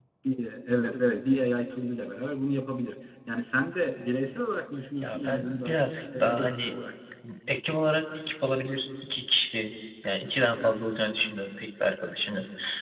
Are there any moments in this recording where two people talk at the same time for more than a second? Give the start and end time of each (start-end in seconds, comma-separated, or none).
5.0-6.7